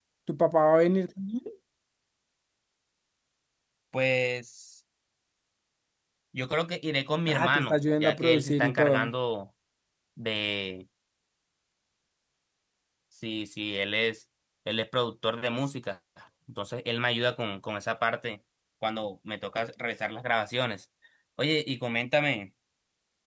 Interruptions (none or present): present